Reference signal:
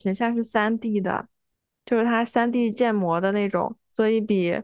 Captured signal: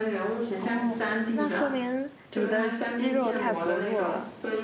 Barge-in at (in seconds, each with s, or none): 0.6 s